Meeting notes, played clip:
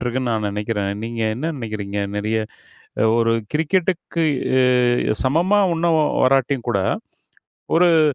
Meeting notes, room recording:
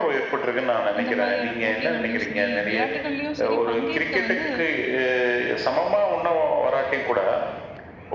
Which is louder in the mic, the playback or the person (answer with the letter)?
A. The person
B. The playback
B